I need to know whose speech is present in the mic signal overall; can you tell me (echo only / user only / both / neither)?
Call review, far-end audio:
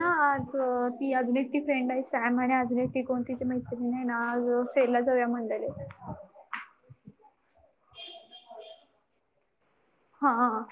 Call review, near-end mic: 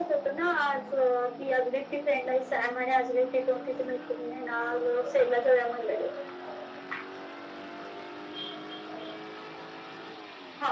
echo only